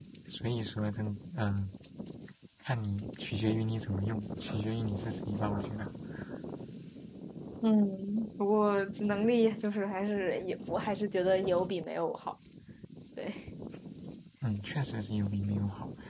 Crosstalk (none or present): none